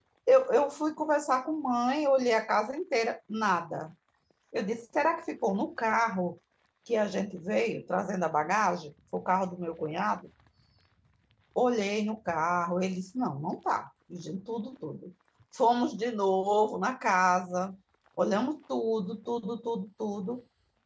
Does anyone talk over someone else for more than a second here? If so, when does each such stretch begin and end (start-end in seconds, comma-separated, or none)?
none